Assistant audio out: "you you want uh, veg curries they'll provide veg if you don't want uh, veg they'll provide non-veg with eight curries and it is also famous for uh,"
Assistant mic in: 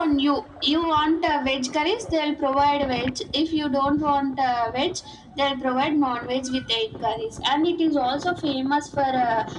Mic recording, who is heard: echo only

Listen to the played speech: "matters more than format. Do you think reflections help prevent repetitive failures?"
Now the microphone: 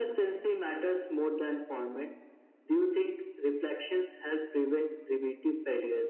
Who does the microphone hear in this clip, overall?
echo only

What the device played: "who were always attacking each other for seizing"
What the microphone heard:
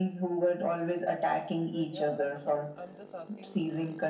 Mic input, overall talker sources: both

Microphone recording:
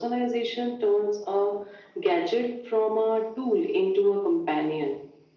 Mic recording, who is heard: echo only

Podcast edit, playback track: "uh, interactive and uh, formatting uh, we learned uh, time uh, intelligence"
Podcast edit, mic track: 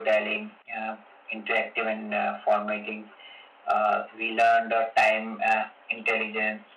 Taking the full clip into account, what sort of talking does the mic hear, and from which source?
echo only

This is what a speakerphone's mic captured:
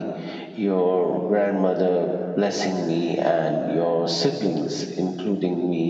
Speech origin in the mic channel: echo only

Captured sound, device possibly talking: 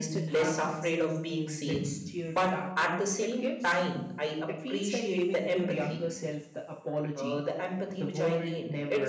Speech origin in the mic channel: both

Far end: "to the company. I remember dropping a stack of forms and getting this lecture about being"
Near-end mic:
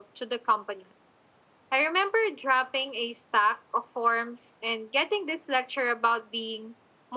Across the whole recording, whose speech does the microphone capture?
echo only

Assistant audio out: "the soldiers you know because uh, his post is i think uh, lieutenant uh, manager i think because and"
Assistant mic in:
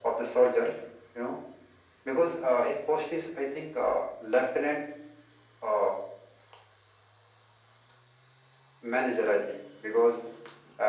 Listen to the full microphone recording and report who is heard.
echo only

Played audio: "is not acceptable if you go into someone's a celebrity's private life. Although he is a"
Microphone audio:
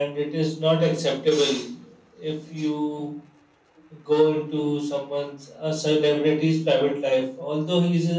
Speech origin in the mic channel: echo only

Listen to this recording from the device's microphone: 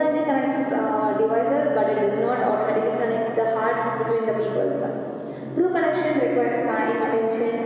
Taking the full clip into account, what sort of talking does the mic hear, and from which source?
echo only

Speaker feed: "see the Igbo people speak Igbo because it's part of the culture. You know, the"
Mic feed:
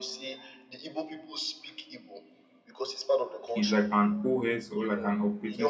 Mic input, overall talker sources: both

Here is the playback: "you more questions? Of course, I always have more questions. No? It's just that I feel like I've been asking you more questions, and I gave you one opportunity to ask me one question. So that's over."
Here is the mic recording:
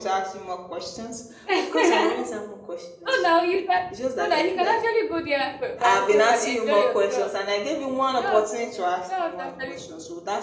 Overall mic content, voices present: both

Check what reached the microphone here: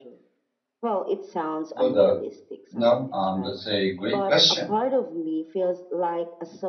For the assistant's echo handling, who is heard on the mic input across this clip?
both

